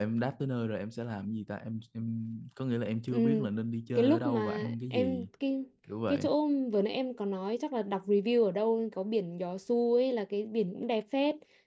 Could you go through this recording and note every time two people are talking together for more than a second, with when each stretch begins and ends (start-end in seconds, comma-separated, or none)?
4.0-5.3